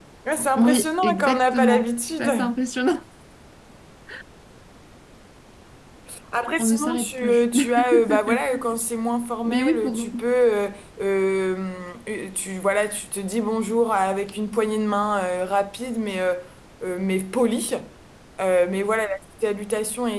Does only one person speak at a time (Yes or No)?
No